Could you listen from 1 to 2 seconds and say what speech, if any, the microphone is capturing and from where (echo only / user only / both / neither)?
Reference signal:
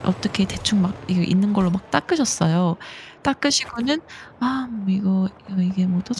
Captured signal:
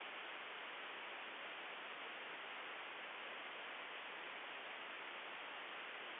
neither